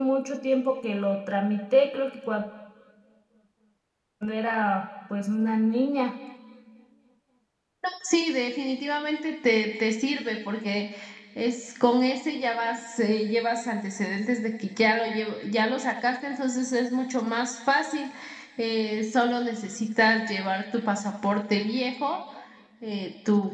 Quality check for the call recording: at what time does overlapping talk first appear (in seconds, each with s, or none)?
none